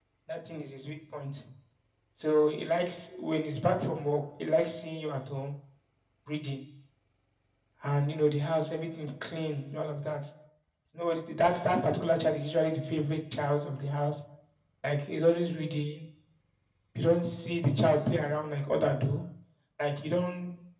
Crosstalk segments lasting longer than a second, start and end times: none

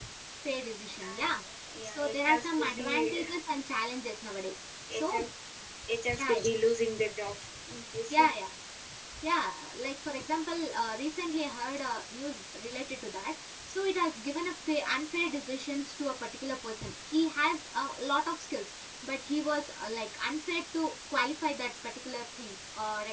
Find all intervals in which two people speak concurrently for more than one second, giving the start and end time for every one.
1.8-3.2

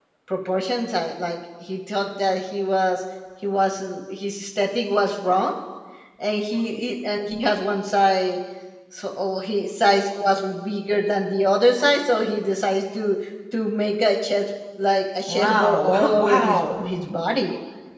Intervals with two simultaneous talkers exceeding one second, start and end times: 15.3-16.9

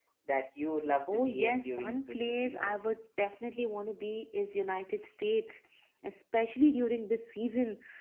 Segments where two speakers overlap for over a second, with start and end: 1.1-2.8

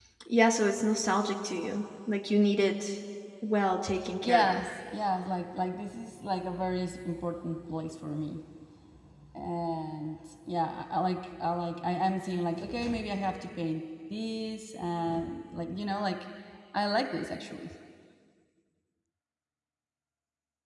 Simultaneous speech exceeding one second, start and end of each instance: none

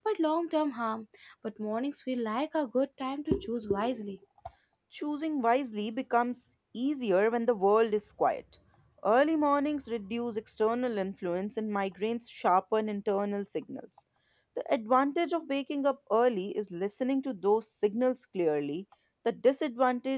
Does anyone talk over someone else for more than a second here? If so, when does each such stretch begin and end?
none

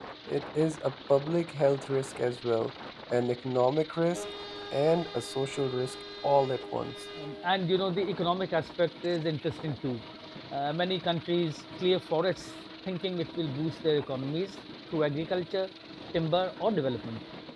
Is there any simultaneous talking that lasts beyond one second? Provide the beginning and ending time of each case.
none

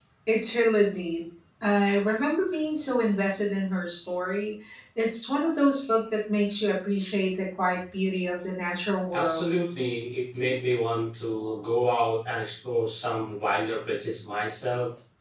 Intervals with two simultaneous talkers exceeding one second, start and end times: none

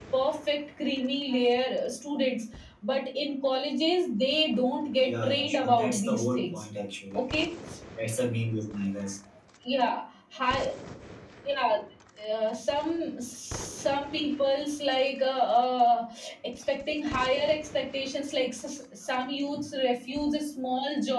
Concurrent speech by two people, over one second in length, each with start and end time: 5.0-6.4

